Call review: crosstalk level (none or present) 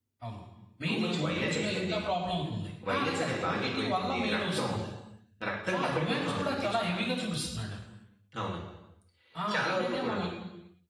present